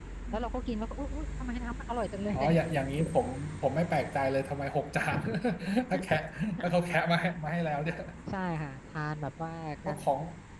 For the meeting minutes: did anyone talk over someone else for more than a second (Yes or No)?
No